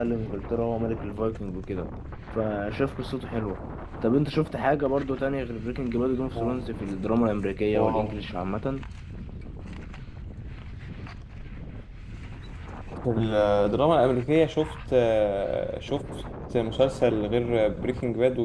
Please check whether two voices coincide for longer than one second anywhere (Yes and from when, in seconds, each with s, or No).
No